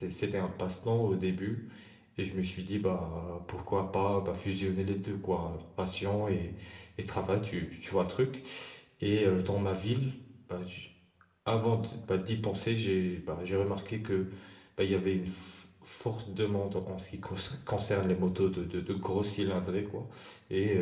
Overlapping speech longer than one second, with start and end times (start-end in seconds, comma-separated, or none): none